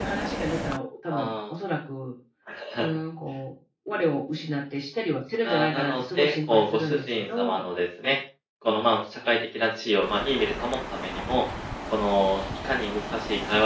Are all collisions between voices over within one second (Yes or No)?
No